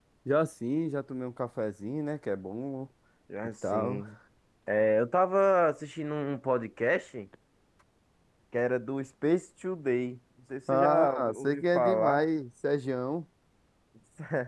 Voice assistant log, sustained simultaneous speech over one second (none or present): present